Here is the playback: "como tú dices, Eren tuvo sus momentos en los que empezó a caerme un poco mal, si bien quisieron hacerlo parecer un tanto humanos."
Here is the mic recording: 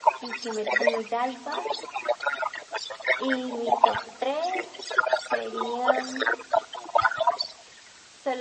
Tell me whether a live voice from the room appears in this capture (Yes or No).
Yes